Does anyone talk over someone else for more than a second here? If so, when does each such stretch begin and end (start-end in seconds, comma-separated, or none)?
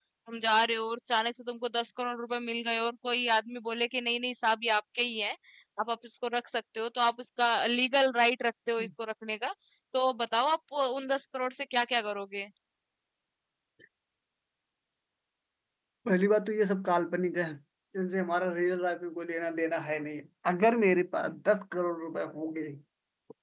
none